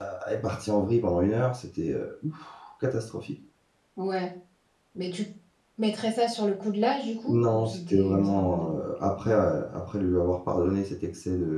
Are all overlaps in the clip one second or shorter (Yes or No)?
No